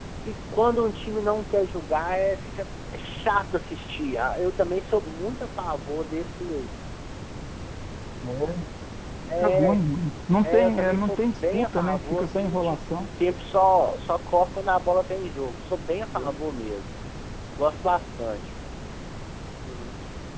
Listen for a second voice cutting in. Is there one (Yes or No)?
Yes